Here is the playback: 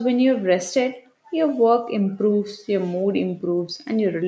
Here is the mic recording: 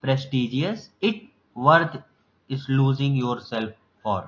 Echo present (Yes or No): No